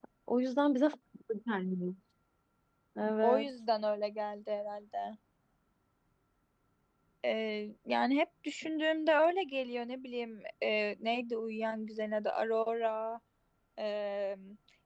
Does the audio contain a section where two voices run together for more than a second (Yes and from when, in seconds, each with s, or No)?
No